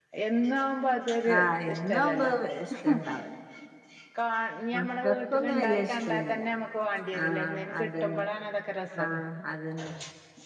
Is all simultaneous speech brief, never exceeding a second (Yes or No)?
No